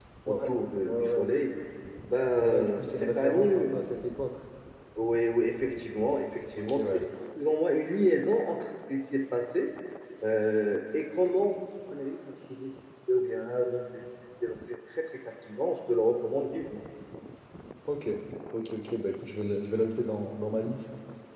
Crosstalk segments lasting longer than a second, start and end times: 2.4-3.7

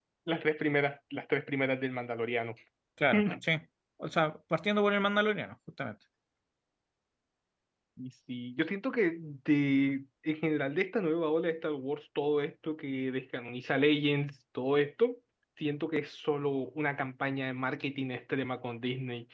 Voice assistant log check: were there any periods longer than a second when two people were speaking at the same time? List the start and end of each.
none

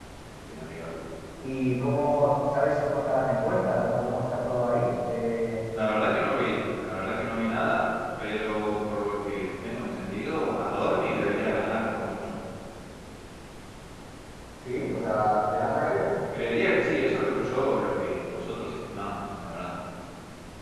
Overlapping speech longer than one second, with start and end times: none

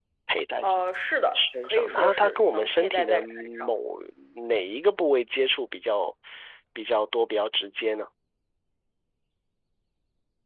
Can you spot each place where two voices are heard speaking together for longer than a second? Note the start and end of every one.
1.4-3.7

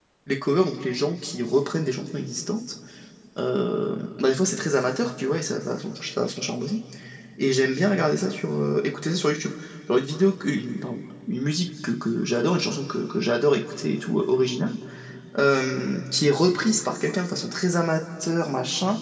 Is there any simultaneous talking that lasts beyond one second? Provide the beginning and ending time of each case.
none

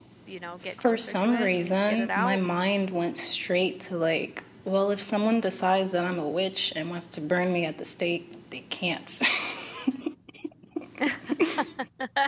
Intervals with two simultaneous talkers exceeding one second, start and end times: 0.8-2.4

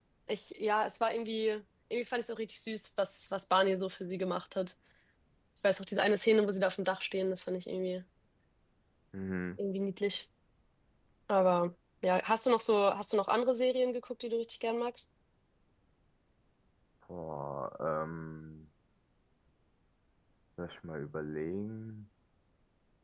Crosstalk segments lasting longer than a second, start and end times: none

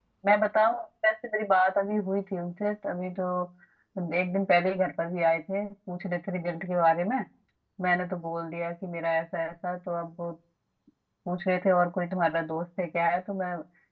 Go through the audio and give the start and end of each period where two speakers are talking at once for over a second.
none

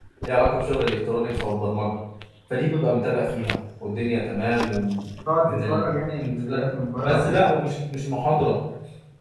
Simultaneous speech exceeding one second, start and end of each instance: none

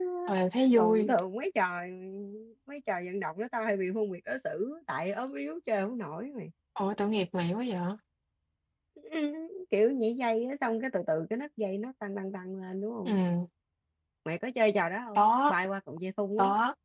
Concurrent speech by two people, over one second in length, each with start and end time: none

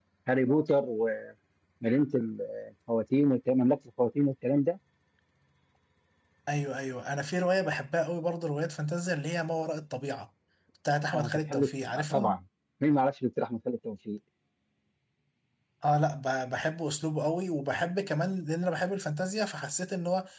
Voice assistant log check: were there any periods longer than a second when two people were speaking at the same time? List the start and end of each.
11.1-12.4

